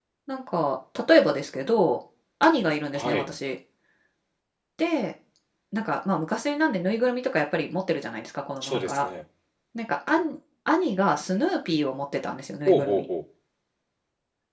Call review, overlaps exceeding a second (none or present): none